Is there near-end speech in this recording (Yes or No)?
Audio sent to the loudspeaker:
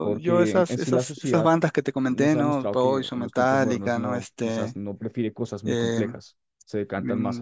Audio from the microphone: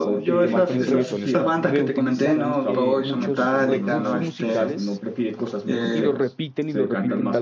Yes